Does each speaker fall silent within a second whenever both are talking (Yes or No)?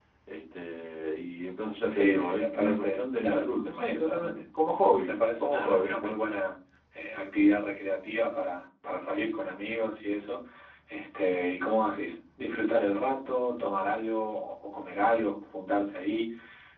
No